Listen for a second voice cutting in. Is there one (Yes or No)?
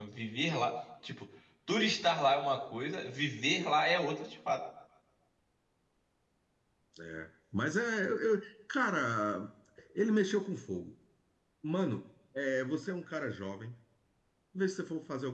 No